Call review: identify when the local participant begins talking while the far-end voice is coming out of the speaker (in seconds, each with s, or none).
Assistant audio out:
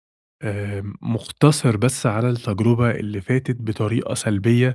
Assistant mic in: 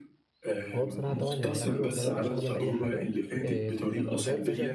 0.7 s